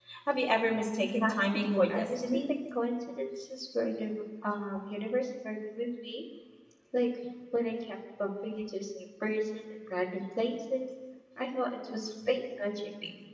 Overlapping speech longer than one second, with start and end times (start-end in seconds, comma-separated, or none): 1.1-2.5